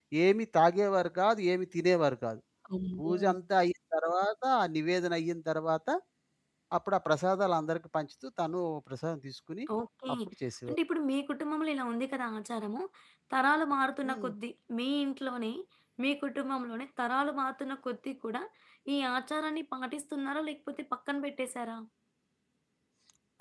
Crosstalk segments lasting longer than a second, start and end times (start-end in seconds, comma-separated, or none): none